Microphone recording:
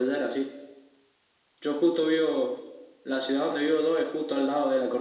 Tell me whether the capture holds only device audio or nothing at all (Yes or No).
Yes